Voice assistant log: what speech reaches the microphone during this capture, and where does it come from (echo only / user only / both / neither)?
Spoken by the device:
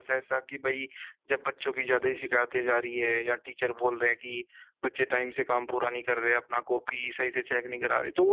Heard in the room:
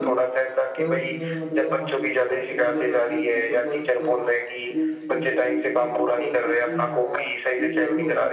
both